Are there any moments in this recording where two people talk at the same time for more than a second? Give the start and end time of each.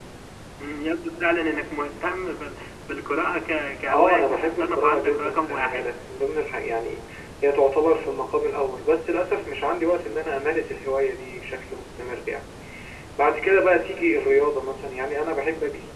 3.9-5.9

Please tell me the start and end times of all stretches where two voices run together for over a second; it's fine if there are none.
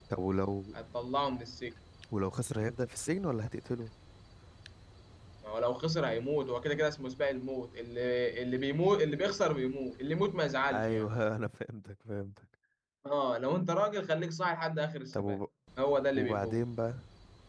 none

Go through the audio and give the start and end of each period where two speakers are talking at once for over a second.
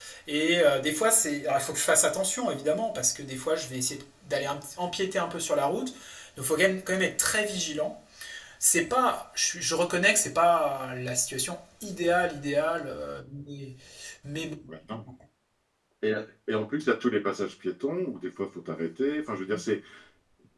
none

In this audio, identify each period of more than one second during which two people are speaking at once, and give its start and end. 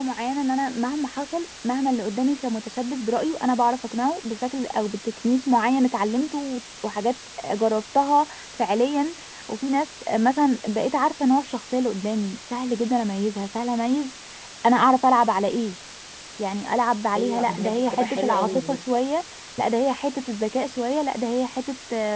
17.2-18.8

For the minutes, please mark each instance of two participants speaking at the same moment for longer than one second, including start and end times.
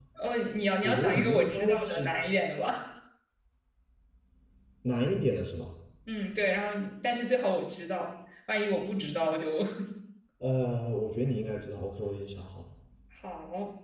0.8-2.1

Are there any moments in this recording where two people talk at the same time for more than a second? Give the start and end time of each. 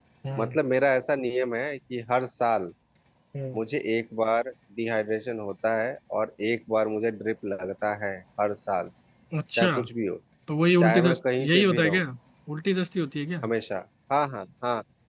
10.8-12.0

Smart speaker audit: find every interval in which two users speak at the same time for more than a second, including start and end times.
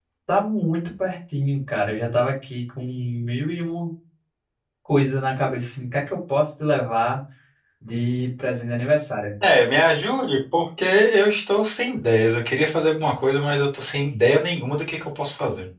none

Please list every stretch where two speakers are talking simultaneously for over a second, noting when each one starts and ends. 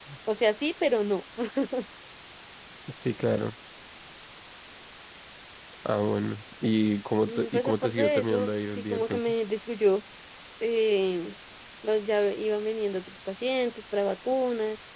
7.3-9.2

